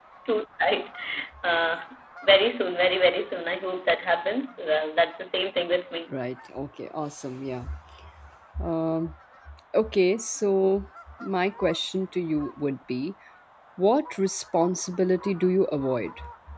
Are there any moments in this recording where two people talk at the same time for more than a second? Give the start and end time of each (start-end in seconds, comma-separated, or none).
none